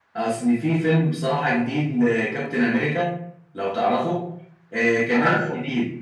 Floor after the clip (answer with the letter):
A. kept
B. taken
A